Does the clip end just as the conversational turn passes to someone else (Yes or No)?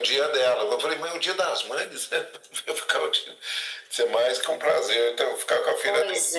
No